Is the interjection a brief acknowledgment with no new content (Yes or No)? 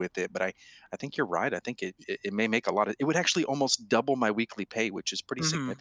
No